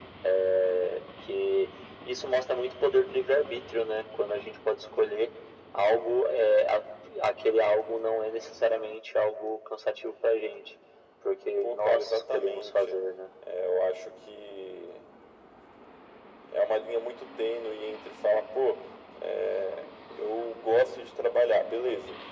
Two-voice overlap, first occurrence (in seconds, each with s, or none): 11.6 s